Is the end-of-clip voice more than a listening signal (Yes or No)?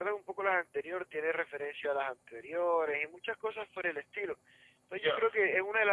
No